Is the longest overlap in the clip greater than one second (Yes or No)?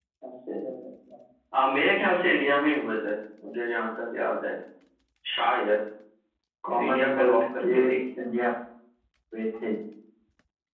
Yes